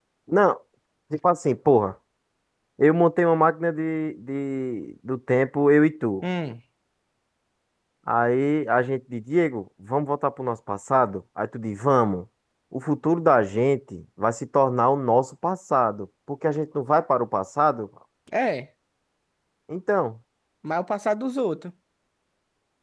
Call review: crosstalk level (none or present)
none